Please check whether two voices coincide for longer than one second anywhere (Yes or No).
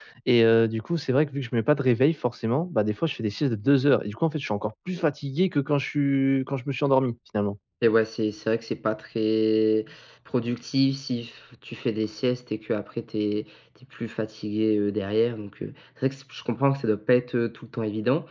No